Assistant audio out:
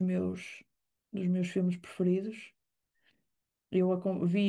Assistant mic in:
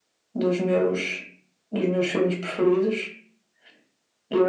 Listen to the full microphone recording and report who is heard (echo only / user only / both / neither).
echo only